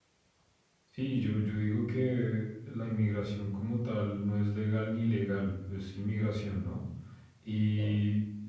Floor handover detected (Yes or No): No